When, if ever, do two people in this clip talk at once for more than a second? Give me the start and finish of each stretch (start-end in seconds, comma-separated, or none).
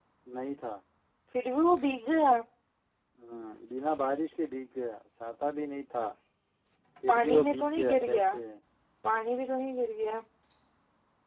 7.1-8.3